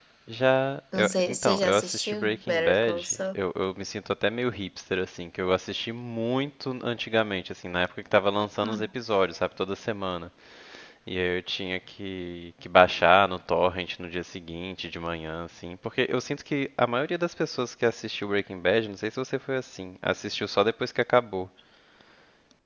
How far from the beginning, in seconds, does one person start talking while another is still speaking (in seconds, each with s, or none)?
1.0 s